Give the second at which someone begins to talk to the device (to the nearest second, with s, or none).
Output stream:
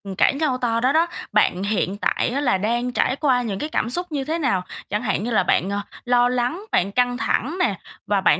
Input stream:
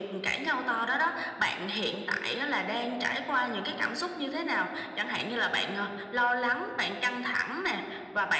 none